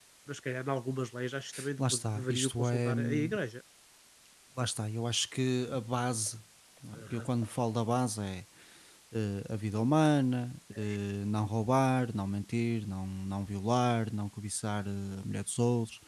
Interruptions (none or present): present